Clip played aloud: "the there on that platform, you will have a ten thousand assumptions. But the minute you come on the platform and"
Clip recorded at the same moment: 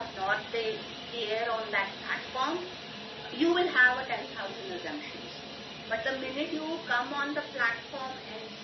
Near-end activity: none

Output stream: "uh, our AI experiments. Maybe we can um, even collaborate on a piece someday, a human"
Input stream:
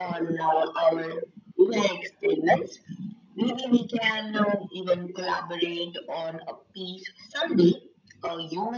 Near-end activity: none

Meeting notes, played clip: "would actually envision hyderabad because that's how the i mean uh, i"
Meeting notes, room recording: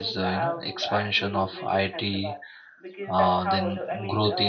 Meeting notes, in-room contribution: present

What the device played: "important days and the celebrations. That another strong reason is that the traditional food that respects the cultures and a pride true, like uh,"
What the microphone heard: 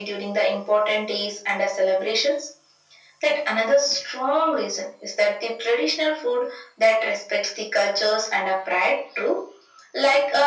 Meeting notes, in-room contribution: none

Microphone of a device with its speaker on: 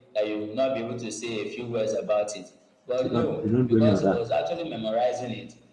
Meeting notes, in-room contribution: present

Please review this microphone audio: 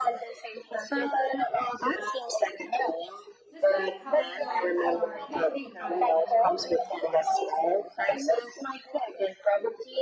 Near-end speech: present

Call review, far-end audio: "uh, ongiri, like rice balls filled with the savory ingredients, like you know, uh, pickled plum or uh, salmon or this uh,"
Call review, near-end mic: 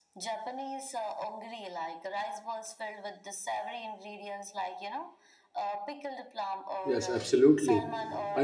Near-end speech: present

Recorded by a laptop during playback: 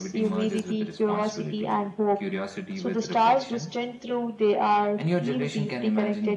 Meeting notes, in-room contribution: none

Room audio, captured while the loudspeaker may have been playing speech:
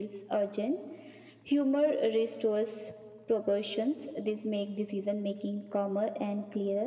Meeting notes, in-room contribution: none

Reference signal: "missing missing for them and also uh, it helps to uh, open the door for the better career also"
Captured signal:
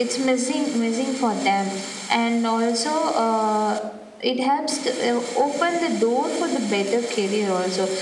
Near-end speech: none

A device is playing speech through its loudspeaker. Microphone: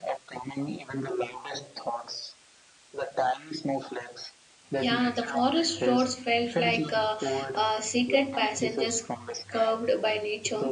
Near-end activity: present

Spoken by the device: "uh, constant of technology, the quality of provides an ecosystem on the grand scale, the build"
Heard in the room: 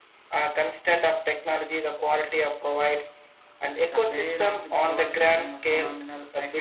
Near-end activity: present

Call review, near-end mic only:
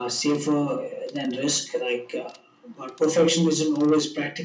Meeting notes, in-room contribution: none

